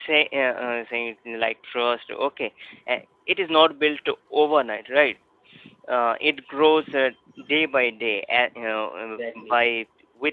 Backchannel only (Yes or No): Yes